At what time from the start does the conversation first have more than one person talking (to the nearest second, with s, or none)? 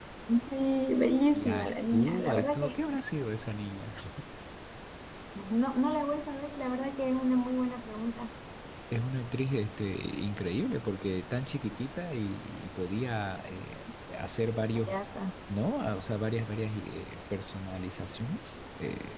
1 s